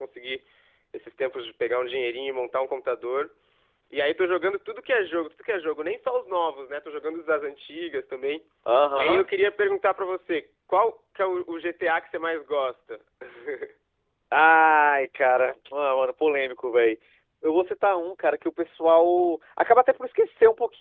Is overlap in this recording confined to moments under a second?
Yes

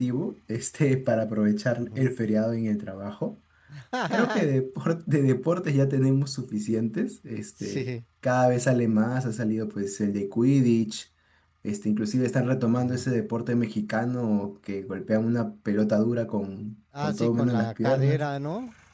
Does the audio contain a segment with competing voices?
Yes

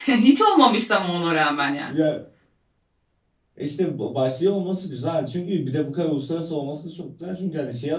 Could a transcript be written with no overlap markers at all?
Yes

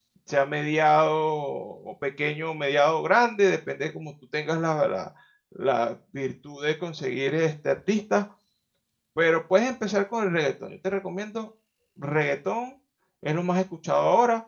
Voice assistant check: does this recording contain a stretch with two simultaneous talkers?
No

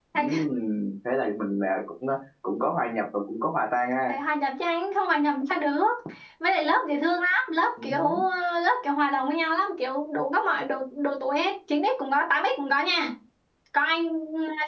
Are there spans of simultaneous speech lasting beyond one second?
No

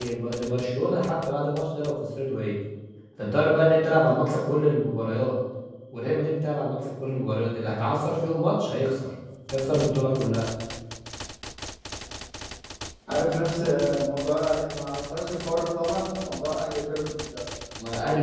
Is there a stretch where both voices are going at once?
No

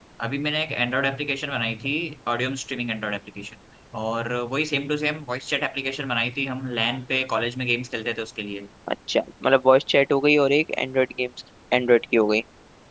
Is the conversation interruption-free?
Yes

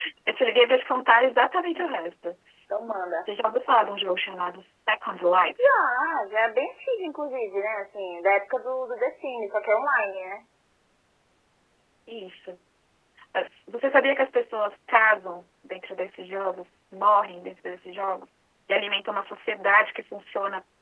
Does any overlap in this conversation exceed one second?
No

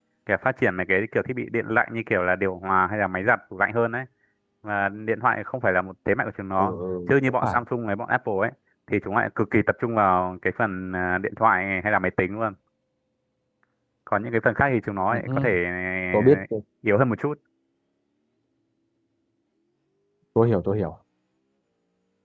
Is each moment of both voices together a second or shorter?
Yes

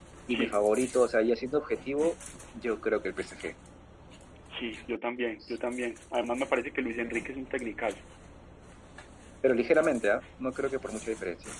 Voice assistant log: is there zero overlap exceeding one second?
Yes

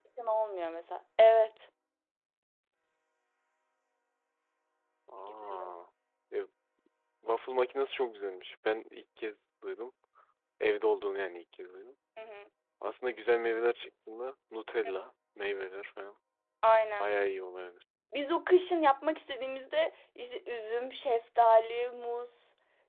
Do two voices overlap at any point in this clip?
No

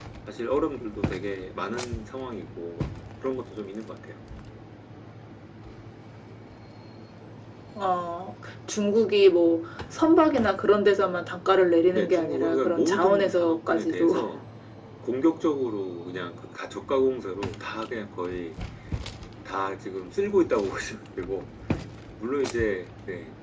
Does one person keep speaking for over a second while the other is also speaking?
Yes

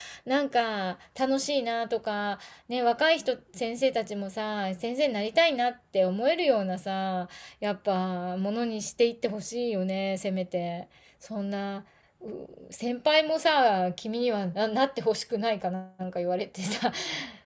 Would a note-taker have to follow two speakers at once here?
No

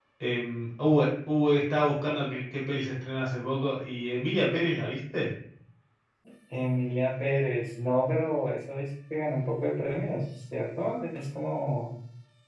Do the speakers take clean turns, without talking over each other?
Yes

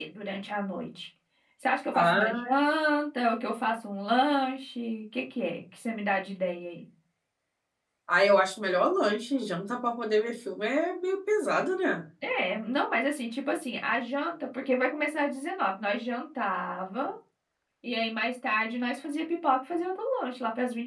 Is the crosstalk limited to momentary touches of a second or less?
Yes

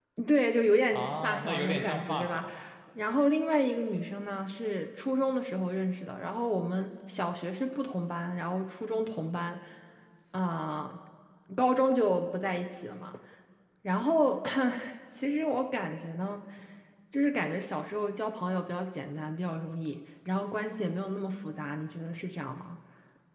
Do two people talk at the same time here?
Yes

